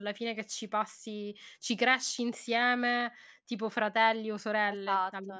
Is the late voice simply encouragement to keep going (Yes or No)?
No